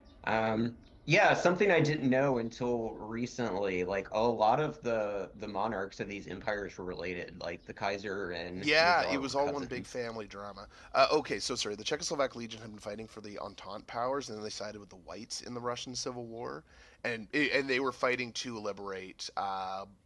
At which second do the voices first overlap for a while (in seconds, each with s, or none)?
8.6 s